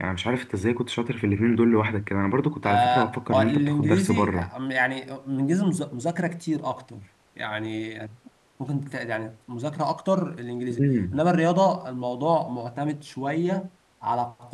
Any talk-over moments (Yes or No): Yes